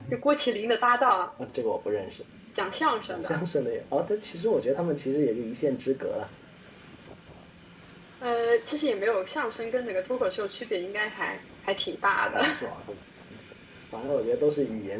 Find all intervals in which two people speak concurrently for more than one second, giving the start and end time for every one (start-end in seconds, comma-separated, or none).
none